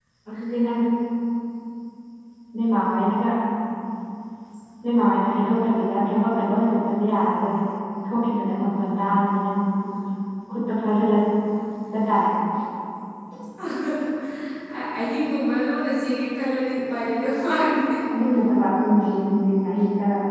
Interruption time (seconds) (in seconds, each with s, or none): none